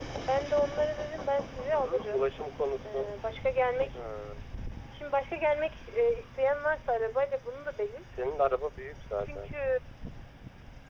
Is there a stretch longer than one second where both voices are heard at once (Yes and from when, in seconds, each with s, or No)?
No